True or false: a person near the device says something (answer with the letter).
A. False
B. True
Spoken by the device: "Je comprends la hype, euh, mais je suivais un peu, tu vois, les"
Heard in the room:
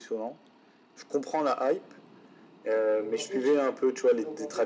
B